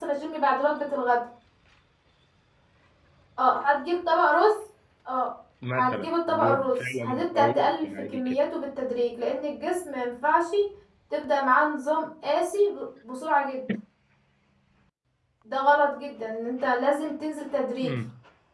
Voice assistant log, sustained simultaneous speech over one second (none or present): present